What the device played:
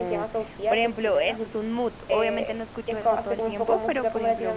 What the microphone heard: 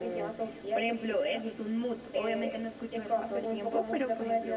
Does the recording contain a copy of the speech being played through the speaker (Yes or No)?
Yes